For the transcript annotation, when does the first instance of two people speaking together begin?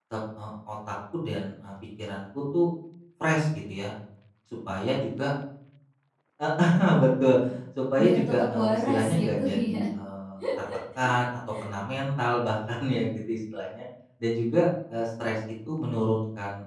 8.0 s

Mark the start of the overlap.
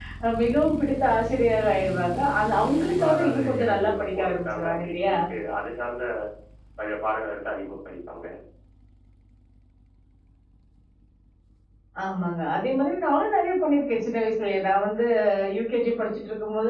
2.8 s

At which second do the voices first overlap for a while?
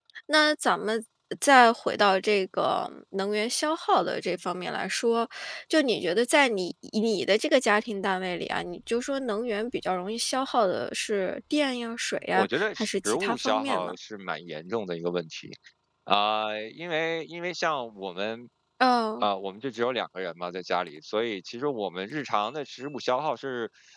12.3 s

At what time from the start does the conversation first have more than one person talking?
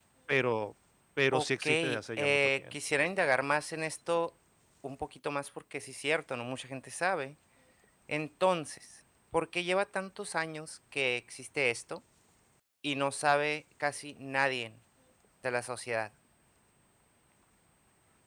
1.3 s

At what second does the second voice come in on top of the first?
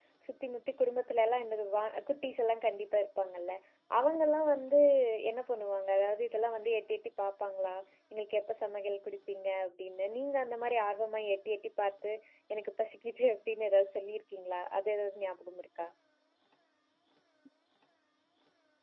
none

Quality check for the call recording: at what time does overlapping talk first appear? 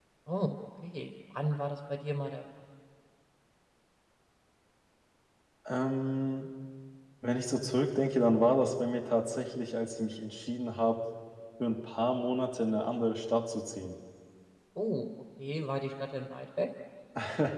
none

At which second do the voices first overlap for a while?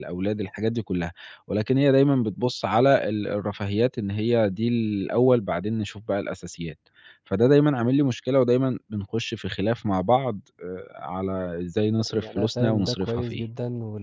12.0 s

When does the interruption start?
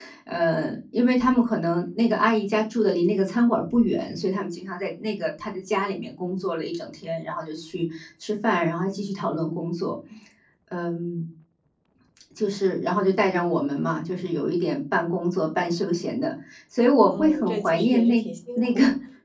17.0 s

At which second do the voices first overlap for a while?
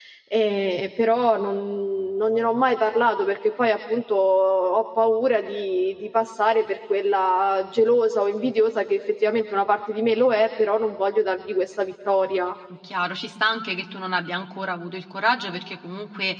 none

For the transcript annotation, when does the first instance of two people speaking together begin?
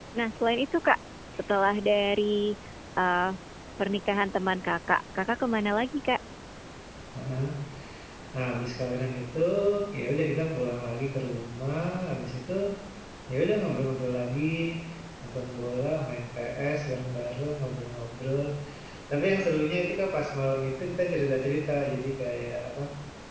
none

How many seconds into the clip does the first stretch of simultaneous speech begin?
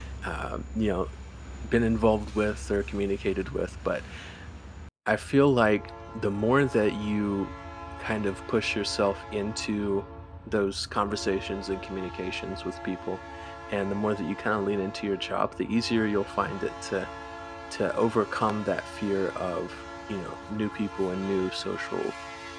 none

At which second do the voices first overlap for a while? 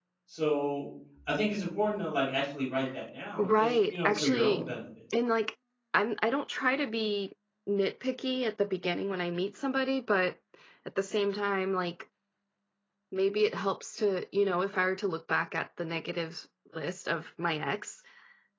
3.4 s

